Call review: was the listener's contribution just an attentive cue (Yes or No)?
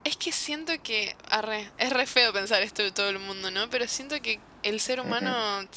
Yes